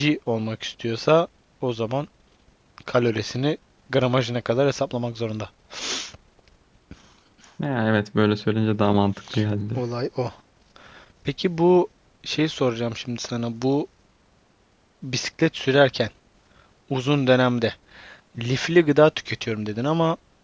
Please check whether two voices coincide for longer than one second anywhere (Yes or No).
No